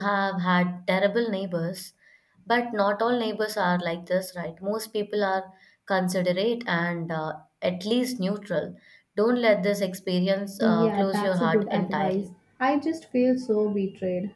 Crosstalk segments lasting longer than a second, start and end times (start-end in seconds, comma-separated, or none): 10.6-12.3